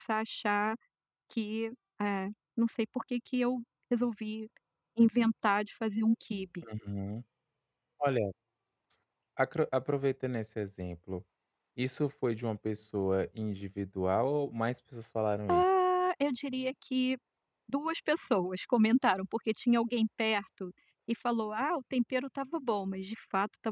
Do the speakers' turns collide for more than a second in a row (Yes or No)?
No